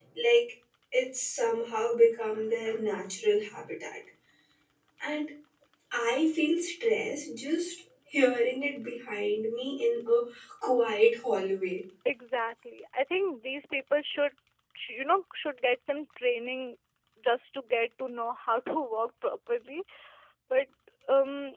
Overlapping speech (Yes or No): No